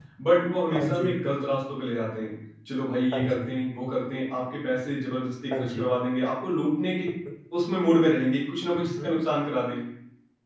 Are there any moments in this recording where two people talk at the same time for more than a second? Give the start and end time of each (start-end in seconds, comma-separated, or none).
none